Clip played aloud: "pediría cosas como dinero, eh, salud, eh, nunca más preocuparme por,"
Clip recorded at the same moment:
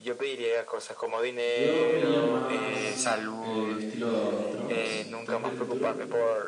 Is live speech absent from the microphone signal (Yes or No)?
No